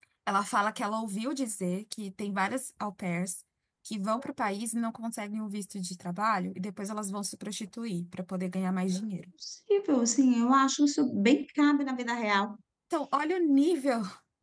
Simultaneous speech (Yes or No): No